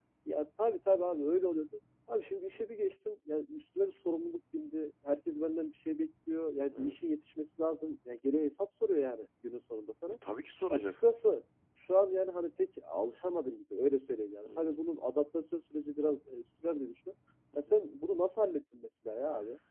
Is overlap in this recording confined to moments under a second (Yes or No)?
Yes